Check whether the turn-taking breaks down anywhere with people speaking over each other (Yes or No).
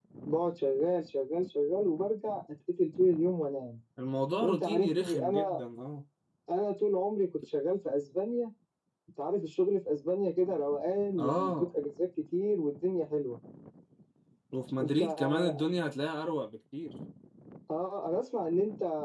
Yes